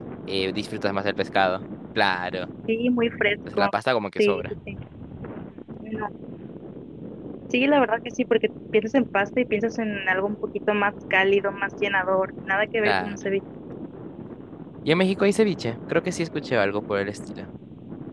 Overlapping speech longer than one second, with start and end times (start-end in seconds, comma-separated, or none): none